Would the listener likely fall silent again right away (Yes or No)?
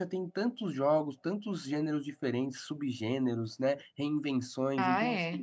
Yes